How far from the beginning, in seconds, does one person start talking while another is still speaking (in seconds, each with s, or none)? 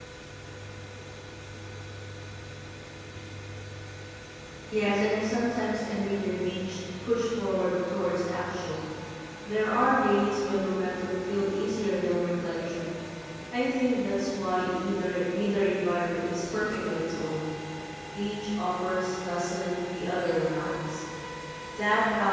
none